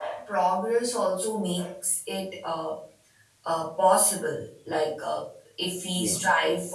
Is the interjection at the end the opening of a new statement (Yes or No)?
No